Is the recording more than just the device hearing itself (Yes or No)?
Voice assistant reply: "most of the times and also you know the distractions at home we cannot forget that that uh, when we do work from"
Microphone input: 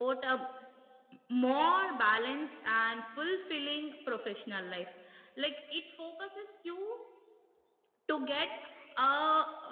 Yes